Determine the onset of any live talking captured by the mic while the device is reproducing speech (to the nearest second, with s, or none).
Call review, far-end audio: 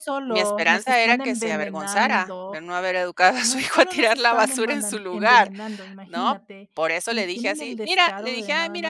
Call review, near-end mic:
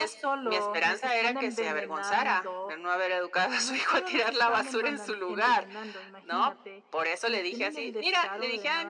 none